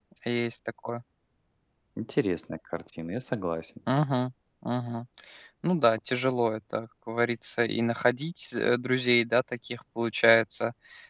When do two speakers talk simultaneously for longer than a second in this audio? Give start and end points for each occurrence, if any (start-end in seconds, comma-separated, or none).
none